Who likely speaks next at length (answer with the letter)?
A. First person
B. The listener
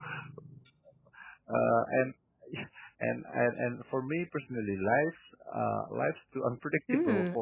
B